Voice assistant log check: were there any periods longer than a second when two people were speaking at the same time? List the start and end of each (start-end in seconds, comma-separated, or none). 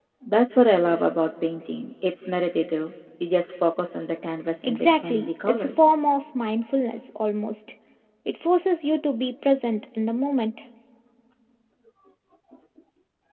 4.6-5.9